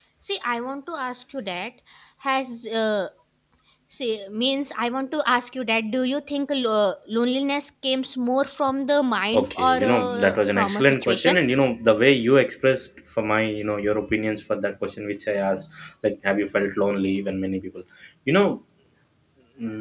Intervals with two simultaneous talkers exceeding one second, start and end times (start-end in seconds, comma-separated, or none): 9.3-11.4